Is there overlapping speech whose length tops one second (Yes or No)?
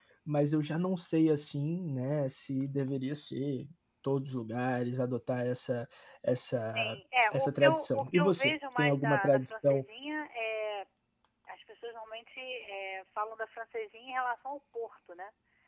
Yes